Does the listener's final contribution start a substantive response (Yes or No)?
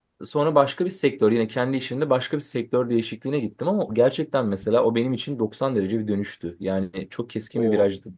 No